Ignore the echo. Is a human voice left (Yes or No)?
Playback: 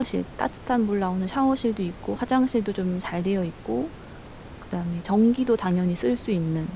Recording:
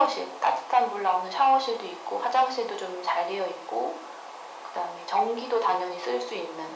No